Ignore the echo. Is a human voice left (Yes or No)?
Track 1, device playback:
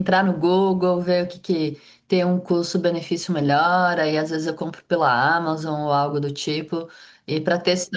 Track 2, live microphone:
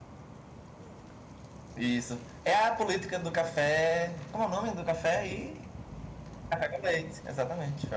Yes